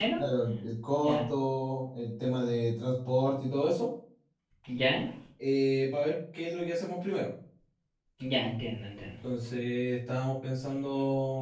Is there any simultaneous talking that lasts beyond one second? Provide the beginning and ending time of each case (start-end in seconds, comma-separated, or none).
none